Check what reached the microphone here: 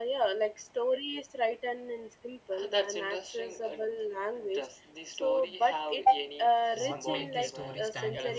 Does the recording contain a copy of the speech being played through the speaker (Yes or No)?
Yes